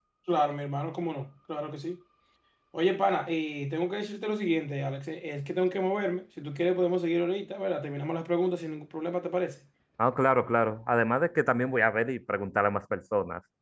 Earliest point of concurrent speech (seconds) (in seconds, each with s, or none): none